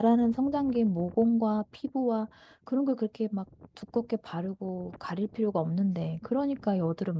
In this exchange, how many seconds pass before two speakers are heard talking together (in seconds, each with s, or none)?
none